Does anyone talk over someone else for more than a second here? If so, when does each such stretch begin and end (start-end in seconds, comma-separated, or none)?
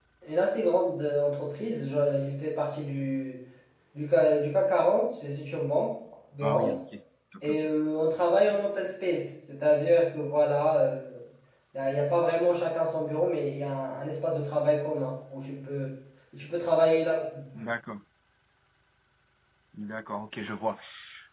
none